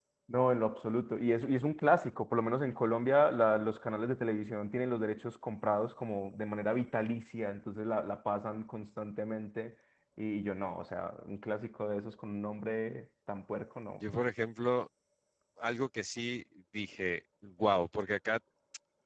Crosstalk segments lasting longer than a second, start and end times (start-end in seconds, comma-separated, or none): none